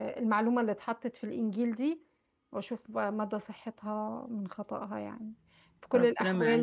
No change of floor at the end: Yes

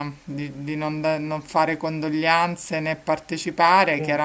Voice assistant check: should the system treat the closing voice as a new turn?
No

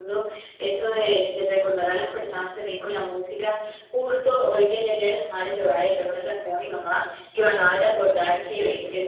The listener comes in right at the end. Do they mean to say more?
No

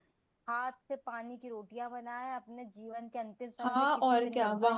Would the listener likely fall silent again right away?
No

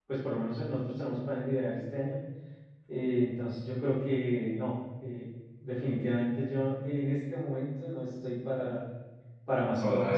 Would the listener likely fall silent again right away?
Yes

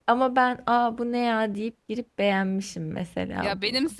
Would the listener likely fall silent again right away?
No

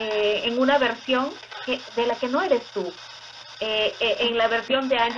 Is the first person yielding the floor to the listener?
No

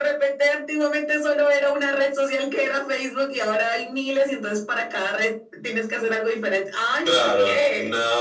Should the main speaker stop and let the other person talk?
Yes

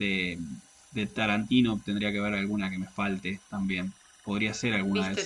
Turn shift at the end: Yes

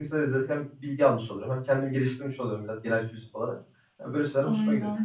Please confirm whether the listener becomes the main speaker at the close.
No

